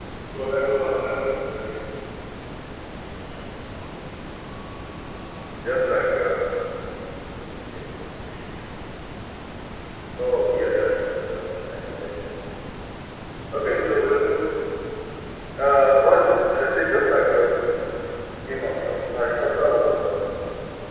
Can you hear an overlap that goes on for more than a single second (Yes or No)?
No